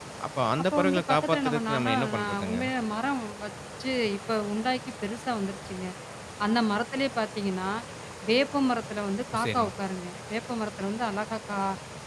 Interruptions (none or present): present